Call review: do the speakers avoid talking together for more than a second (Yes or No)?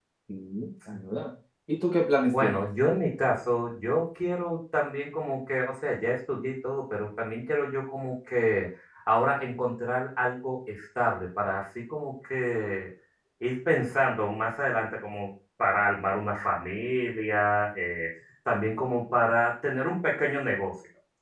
Yes